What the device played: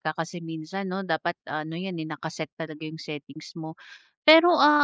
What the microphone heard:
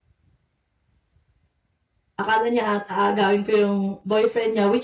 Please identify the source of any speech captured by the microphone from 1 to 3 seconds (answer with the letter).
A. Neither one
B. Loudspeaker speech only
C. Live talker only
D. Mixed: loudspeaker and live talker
C